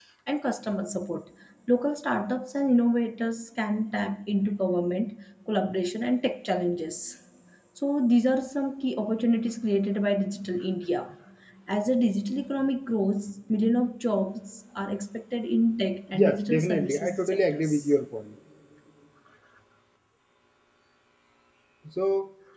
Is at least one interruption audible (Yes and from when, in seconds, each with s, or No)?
Yes, from 16.1 s